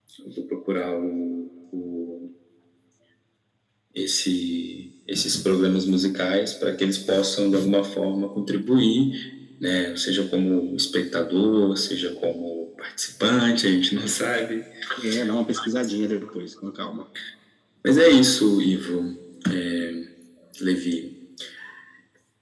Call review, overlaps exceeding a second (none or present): none